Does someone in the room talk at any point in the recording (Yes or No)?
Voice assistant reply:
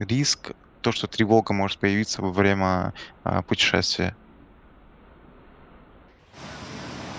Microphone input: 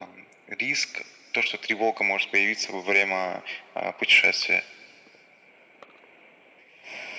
No